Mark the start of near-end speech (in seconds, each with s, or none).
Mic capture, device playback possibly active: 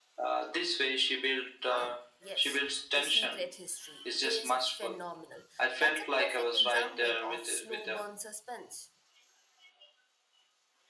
1.7 s